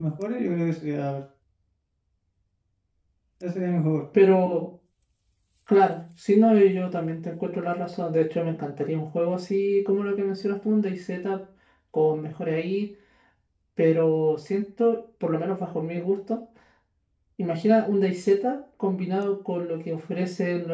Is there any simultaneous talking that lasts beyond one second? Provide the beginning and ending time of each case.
none

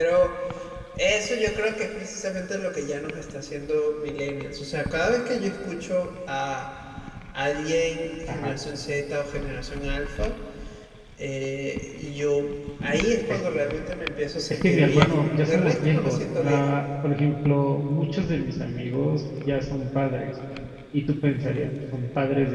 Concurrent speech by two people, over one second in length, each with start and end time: 14.5-16.8

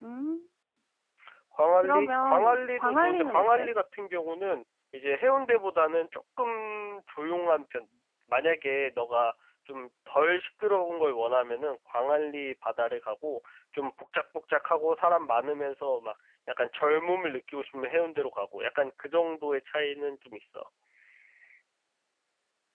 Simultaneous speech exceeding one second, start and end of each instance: 1.8-3.7

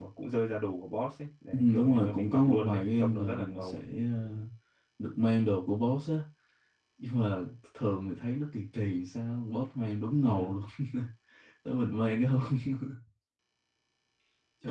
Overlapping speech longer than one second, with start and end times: 1.5-3.8

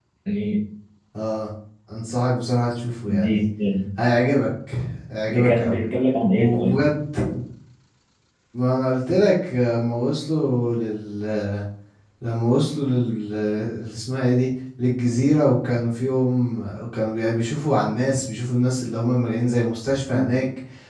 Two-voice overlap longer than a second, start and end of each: none

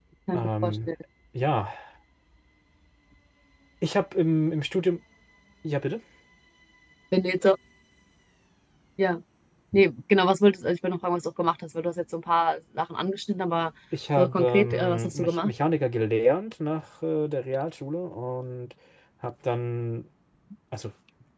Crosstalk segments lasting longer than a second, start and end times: 14.2-15.5

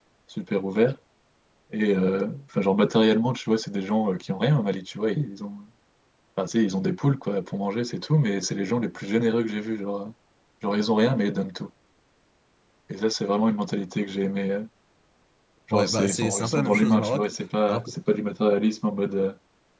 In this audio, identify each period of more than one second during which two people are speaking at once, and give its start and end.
15.7-17.2

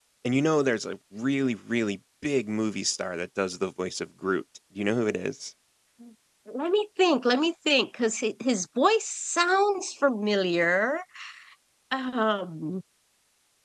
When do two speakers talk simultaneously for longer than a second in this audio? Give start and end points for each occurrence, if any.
none

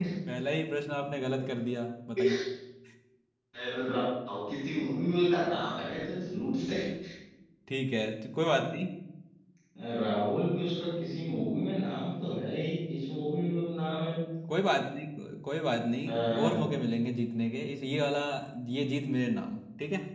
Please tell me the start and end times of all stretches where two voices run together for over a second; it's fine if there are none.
none

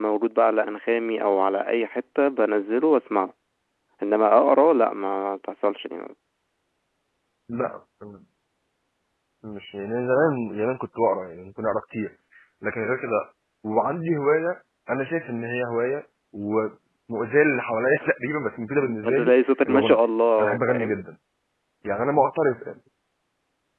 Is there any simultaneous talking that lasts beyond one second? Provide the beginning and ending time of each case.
none

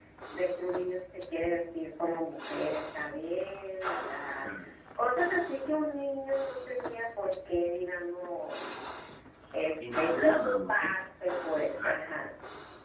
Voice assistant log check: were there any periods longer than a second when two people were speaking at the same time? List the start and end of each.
9.8-11.1

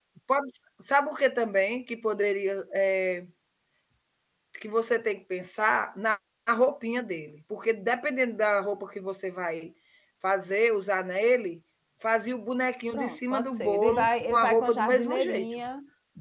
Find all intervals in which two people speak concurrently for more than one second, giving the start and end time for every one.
12.9-15.4

